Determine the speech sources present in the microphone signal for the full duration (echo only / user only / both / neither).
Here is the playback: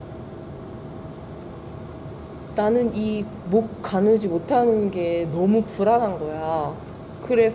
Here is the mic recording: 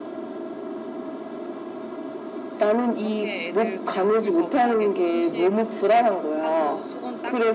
both